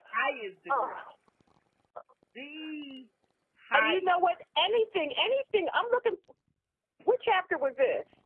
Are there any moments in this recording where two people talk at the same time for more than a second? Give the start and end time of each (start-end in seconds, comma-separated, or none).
none